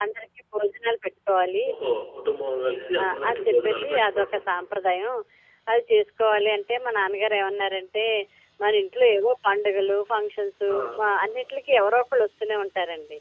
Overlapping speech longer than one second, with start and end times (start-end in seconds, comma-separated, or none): 3.0-4.4